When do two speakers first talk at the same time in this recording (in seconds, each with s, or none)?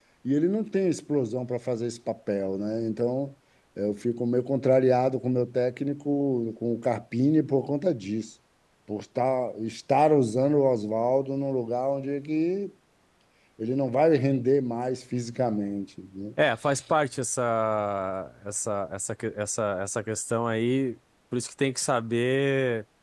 none